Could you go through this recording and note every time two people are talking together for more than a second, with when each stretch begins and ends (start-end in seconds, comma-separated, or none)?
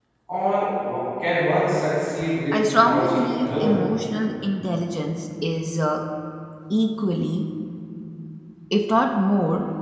2.5-3.8